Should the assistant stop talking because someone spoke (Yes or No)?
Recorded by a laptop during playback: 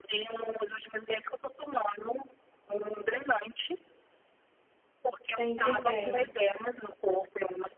Yes